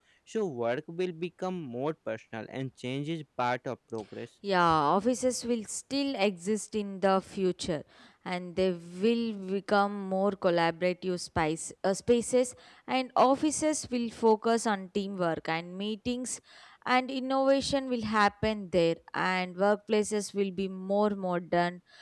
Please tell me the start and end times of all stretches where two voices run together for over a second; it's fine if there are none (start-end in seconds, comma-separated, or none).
none